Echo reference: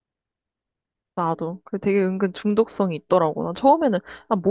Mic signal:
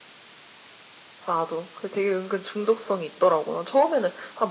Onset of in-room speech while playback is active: none

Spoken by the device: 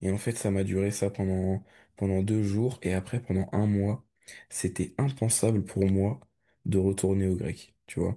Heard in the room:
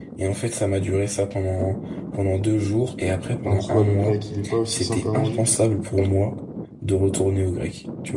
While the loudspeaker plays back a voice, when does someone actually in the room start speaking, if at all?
3 s

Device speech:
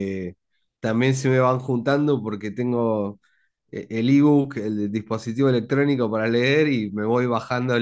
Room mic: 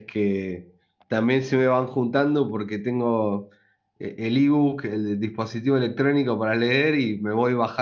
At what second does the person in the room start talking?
none

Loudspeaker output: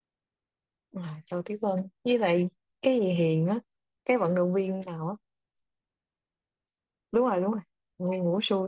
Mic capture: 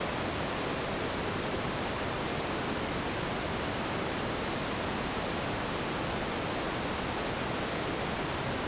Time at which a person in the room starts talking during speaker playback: none

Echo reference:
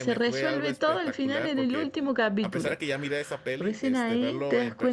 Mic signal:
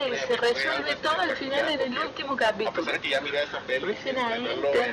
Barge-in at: none

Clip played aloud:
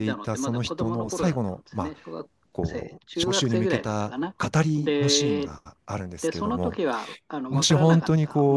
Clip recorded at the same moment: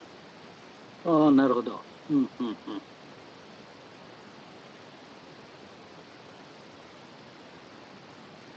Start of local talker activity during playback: 1 s

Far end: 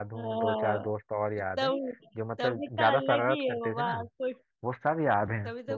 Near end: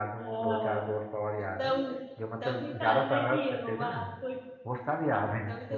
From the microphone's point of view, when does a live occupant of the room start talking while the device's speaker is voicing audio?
none

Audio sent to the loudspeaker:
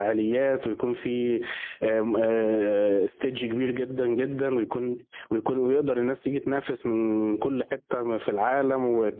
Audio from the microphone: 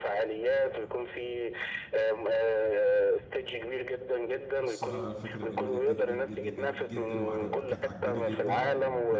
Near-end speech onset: 5 s

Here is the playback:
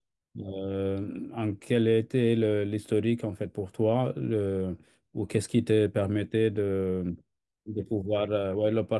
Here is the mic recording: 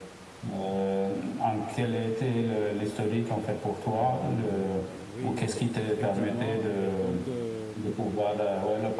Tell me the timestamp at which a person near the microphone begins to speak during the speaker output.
4 s

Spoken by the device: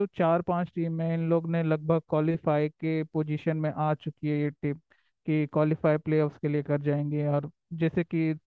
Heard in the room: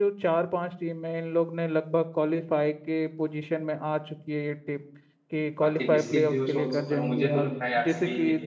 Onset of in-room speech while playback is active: 6 s

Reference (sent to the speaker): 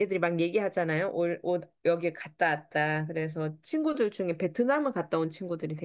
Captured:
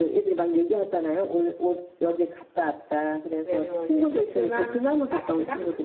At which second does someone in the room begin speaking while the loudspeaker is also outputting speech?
3 s

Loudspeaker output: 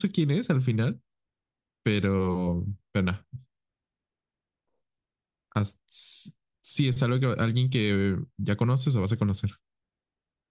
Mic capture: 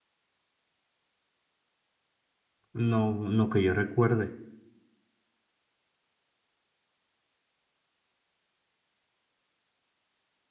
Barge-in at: 3 s

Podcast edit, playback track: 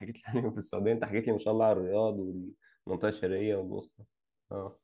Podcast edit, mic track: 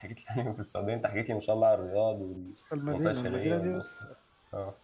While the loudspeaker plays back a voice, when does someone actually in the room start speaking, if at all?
3 s

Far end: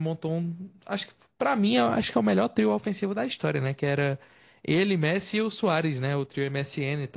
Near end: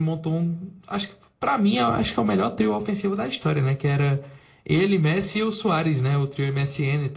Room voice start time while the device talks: none

